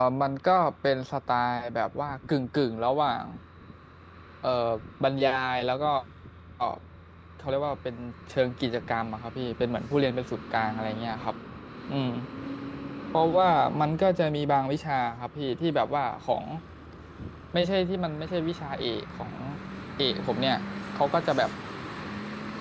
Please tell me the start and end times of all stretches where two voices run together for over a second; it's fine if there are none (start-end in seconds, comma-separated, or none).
none